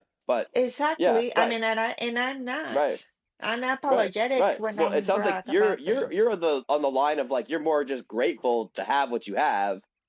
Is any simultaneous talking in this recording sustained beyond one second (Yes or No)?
Yes